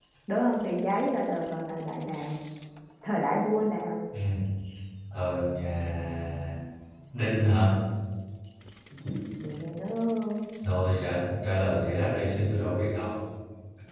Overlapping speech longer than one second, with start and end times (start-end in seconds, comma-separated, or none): none